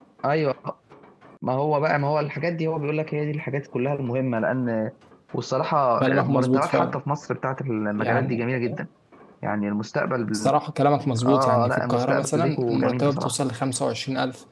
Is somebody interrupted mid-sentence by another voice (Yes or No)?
Yes